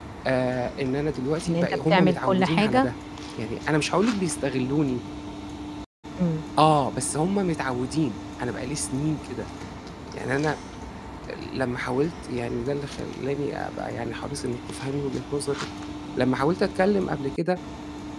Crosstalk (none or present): present